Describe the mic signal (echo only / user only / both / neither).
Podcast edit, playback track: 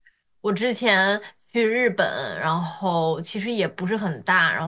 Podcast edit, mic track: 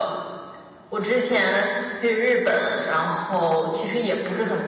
echo only